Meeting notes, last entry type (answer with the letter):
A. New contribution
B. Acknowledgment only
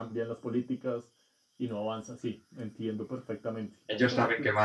A